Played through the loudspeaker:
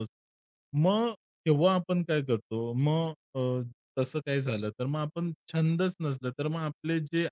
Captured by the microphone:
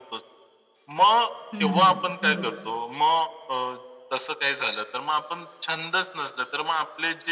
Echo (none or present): present